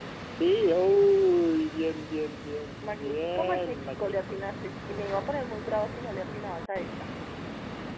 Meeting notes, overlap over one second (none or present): present